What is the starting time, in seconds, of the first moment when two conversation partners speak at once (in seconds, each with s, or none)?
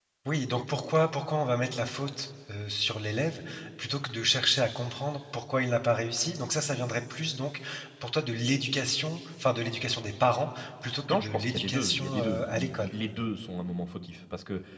11.1 s